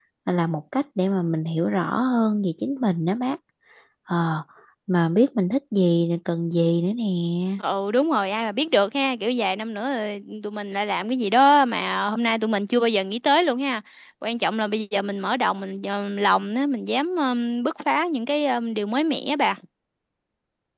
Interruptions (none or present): none